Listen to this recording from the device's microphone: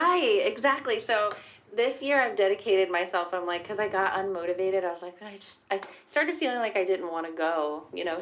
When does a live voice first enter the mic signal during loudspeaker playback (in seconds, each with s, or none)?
none